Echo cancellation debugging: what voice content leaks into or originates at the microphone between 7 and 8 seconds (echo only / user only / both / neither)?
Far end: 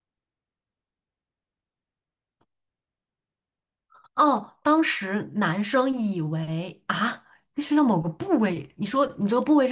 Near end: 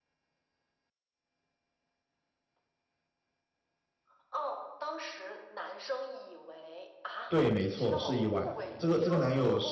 both